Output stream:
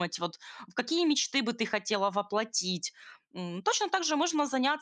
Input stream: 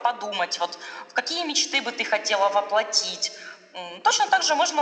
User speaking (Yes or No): No